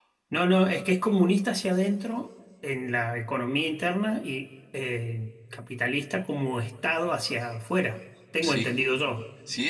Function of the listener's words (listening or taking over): taking over